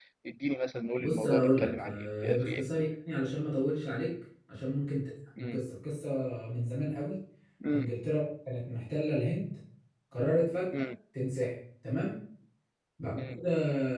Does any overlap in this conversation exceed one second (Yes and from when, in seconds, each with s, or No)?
Yes, from 1.0 s